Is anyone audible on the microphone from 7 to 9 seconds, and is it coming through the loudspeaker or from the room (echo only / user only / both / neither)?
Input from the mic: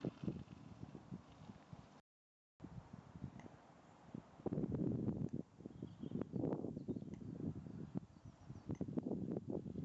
neither